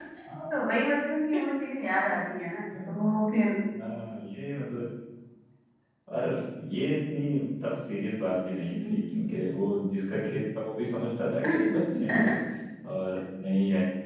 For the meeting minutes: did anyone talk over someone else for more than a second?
No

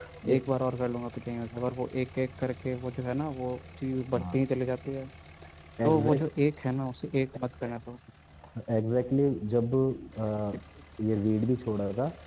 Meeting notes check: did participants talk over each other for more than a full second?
No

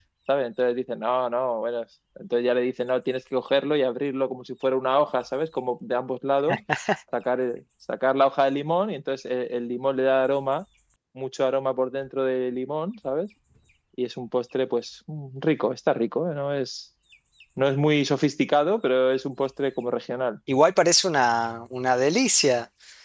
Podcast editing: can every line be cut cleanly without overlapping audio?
Yes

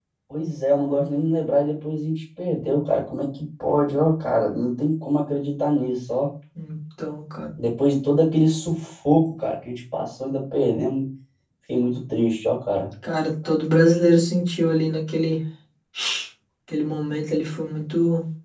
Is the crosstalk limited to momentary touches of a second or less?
Yes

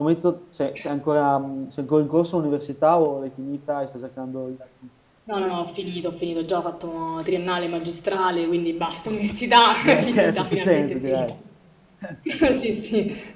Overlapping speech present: Yes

